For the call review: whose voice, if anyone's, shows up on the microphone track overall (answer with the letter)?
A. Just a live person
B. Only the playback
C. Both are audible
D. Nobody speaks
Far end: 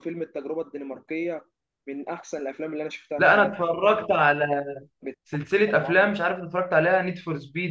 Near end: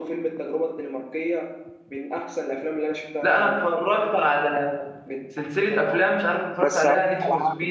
C